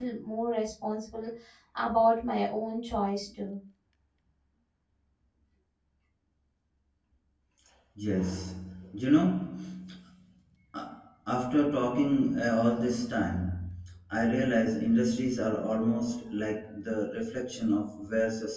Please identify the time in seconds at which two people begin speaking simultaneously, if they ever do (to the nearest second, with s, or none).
none